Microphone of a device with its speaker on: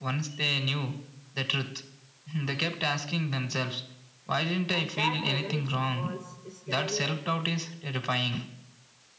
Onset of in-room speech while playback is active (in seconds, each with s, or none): 4.7 s